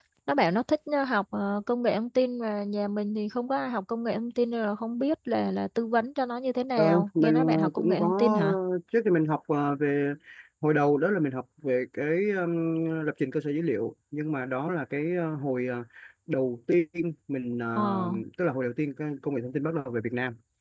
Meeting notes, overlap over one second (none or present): present